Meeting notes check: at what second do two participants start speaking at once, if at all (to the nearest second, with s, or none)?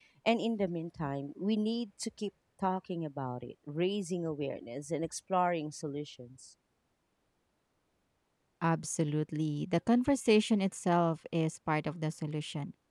none